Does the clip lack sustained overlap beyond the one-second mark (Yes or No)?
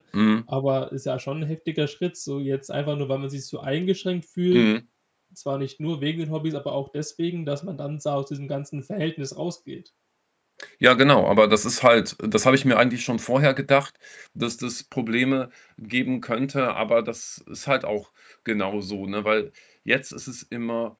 Yes